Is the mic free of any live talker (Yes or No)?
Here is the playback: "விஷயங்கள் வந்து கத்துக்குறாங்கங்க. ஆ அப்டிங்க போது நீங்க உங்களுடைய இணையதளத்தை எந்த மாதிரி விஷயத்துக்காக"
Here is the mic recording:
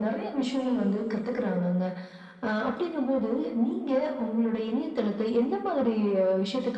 Yes